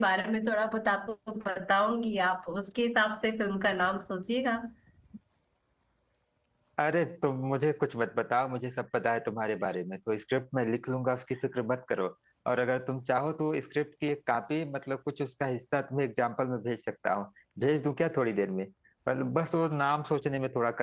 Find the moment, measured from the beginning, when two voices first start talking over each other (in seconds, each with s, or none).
none